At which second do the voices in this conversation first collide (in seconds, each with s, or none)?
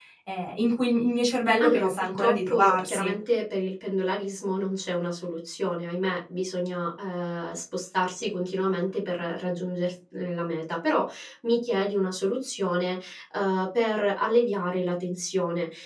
1.6 s